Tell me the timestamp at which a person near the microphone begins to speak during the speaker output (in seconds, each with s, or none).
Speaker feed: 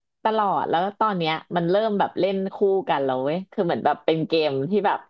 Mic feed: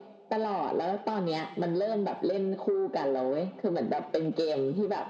none